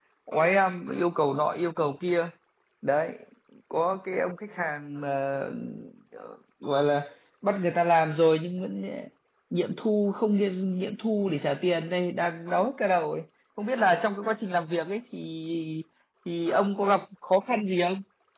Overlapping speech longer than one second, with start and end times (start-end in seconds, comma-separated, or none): none